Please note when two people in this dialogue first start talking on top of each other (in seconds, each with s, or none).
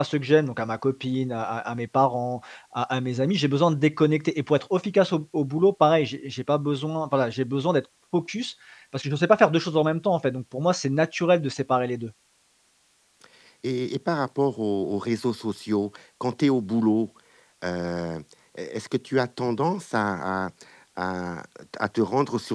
none